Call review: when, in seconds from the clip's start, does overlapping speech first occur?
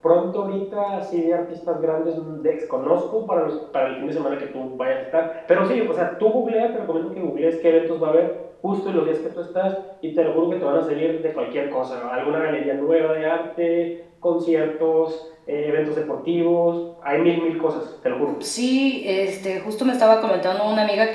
none

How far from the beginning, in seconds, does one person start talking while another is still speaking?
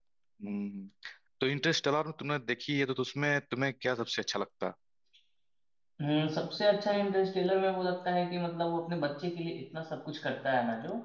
none

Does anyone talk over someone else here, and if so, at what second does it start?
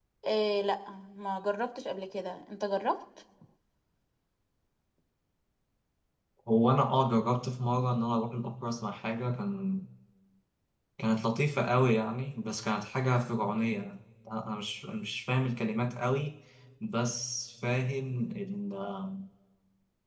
none

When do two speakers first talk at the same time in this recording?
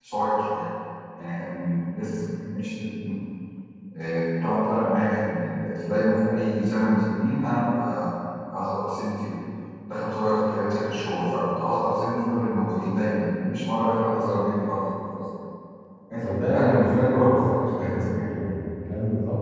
16.2 s

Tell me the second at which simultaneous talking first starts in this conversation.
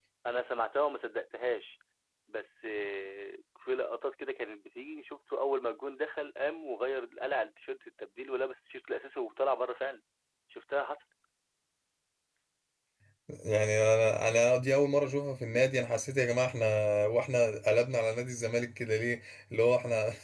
none

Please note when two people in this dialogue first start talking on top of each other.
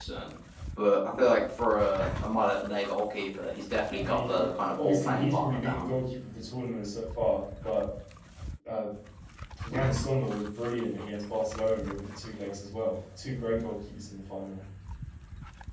3.9 s

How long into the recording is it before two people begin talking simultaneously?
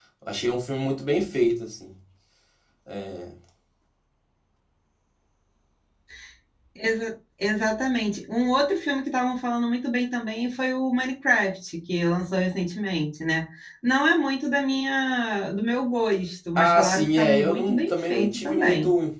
16.6 s

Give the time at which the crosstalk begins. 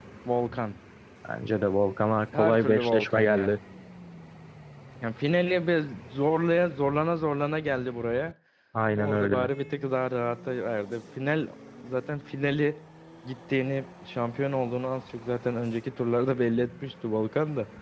2.4 s

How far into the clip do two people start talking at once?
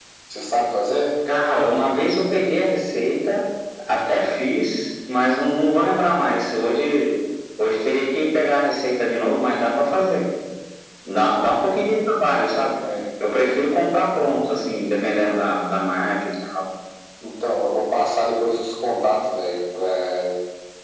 none

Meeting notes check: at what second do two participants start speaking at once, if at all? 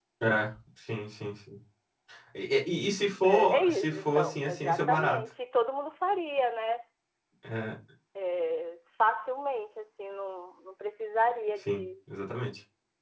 3.2 s

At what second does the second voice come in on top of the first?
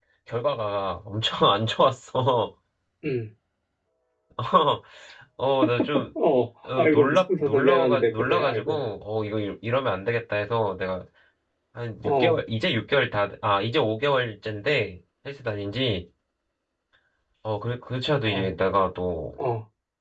6.8 s

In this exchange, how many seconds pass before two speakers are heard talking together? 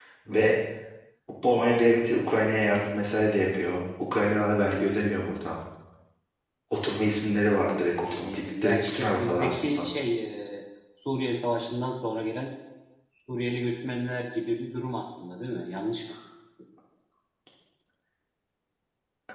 8.1 s

